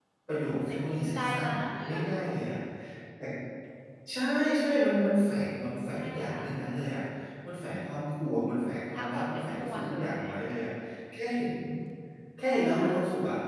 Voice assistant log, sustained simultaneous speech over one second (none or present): present